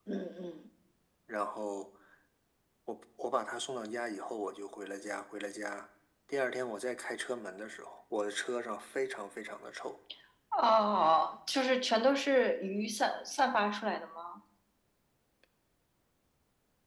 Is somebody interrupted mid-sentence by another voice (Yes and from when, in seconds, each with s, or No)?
No